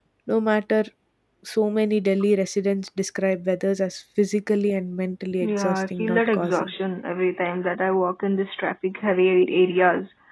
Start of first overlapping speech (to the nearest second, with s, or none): 5 s